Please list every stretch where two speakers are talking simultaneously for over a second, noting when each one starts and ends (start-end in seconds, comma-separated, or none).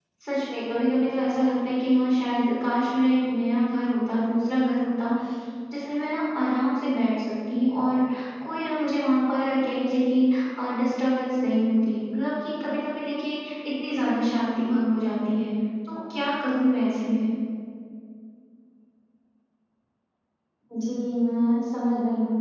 none